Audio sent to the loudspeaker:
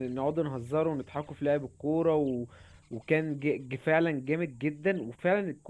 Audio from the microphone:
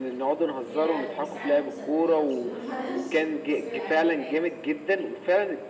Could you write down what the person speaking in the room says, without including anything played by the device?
هي العجل بس عجل بسندات عشان ما بعرفش اسوق العجل العادي

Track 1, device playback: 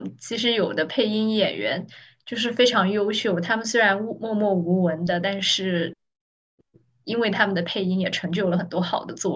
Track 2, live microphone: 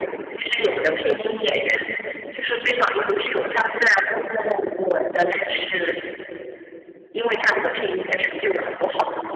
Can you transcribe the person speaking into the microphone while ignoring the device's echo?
none

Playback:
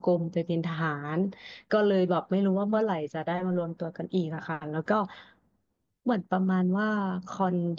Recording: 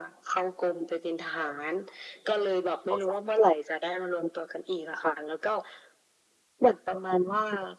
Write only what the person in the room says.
โอเค

